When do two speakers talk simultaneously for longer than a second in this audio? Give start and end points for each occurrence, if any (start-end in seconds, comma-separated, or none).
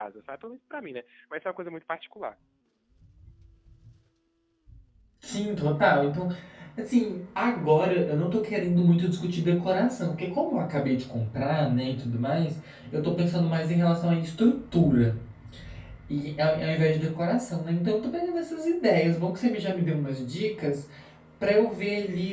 none